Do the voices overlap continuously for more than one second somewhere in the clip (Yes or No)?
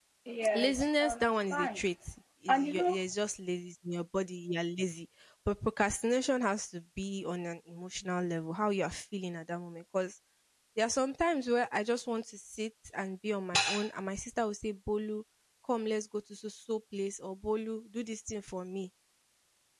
Yes